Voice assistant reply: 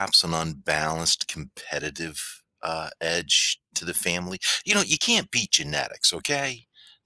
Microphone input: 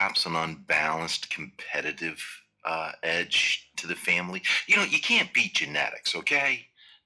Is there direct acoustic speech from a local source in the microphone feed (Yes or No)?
No